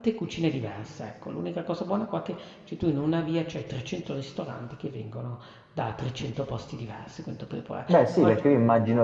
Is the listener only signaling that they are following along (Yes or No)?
No